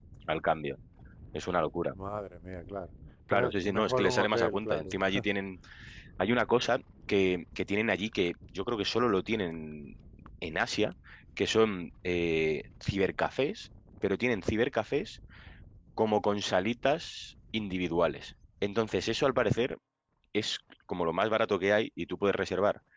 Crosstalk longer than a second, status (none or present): present